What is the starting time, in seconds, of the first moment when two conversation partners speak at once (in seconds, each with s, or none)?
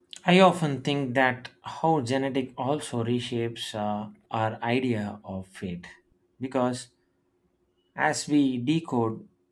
none